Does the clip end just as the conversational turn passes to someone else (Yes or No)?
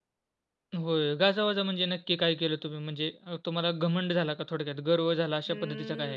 Yes